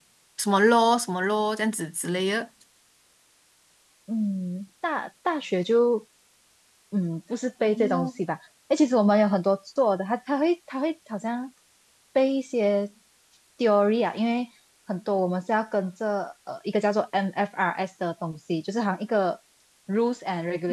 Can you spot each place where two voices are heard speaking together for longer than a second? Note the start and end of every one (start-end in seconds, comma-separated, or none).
none